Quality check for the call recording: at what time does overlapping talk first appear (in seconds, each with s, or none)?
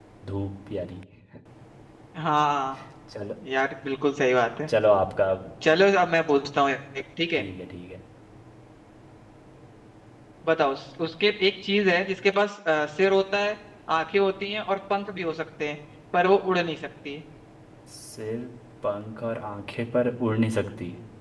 none